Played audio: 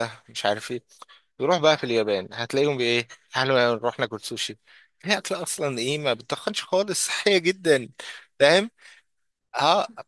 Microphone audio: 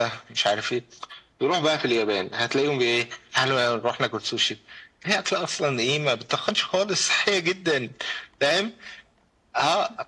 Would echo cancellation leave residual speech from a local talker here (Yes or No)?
No